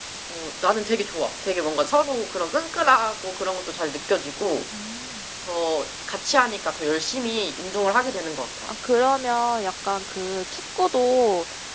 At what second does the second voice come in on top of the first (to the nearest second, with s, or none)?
none